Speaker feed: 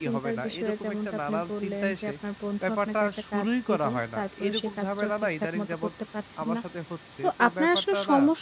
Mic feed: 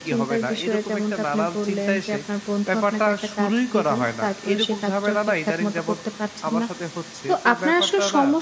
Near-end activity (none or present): none